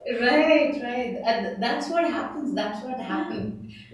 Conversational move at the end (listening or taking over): listening